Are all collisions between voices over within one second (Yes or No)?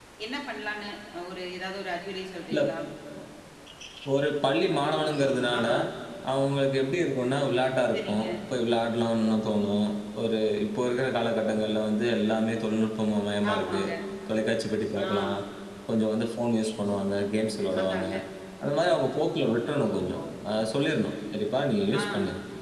Yes